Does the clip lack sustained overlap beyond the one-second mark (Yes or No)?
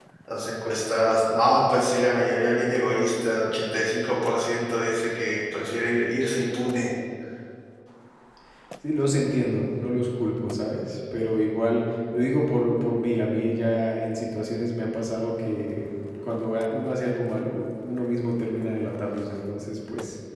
Yes